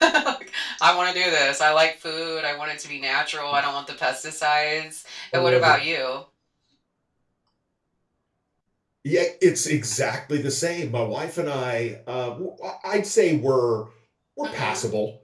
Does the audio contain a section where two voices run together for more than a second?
No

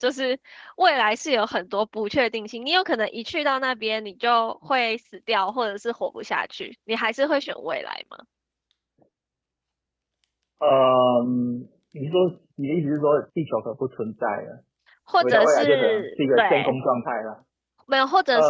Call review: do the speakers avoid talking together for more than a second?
No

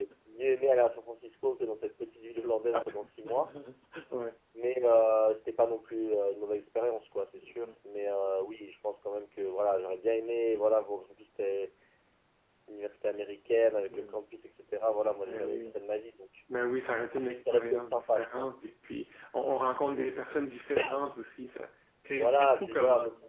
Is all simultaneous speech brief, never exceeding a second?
No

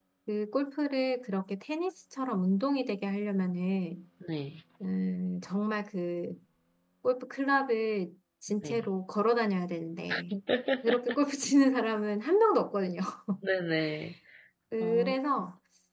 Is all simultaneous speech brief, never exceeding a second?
Yes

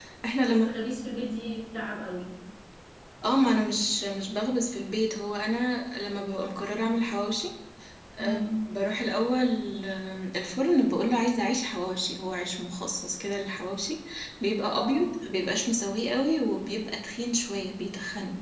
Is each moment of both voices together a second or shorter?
Yes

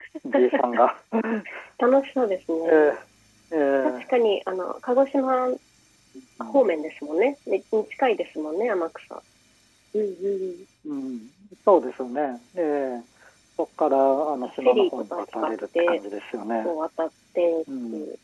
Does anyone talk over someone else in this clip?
Yes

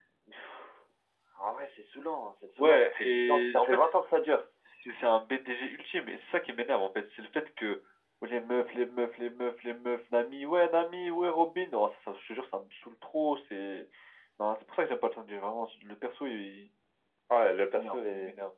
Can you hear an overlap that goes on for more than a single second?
Yes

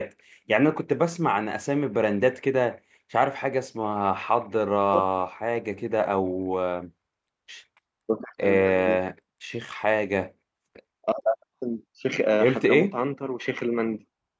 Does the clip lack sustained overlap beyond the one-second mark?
Yes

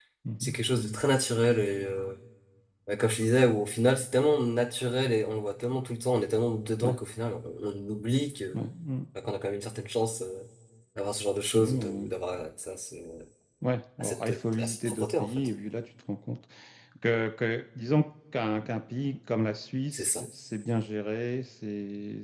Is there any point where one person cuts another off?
Yes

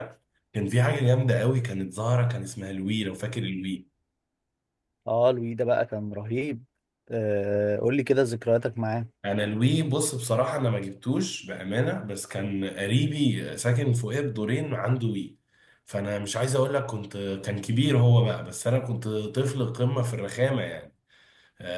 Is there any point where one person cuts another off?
No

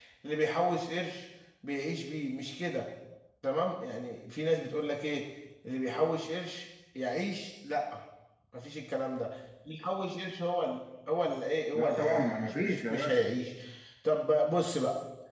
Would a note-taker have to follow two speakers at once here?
Yes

